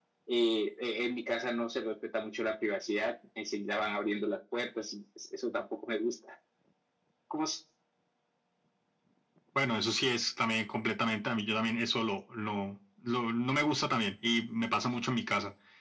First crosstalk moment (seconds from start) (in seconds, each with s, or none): none